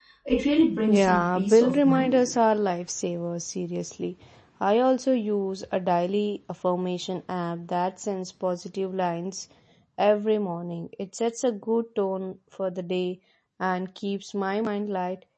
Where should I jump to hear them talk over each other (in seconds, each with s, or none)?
0.9 s